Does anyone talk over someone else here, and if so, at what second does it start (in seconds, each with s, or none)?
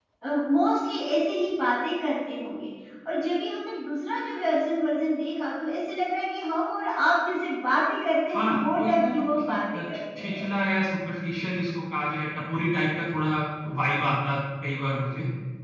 8.3 s